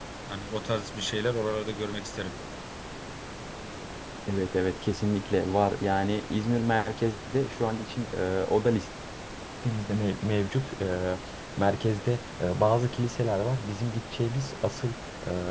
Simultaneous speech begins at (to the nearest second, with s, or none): none